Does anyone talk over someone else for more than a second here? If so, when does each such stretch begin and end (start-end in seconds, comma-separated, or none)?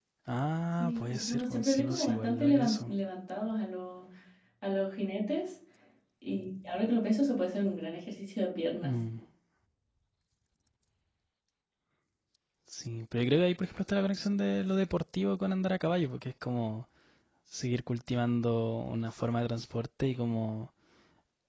0.8-2.9